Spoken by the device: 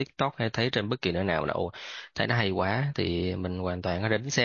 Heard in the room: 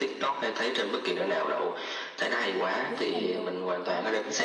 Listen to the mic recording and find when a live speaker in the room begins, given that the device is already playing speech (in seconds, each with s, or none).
2.9 s